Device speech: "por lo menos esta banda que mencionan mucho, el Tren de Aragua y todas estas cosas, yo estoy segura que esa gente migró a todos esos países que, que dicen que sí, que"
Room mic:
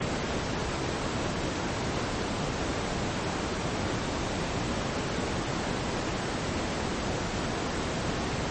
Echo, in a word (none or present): none